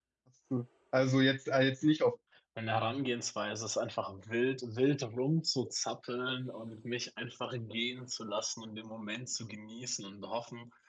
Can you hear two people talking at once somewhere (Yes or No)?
No